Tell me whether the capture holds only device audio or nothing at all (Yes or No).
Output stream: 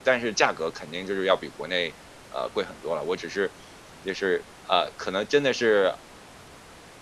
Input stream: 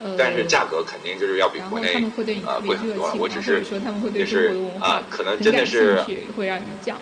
No